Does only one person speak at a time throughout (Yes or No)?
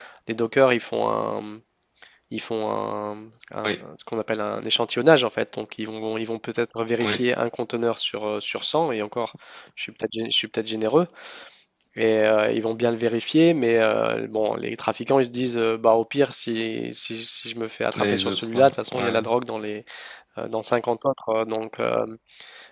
No